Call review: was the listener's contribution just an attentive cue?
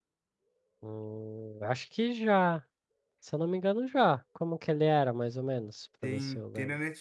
No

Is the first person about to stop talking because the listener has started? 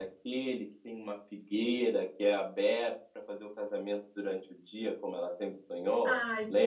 Yes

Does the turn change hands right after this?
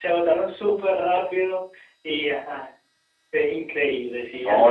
Yes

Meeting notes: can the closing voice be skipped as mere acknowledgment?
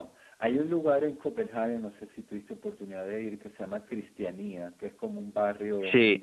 Yes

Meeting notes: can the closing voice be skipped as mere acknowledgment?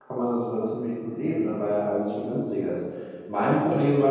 Yes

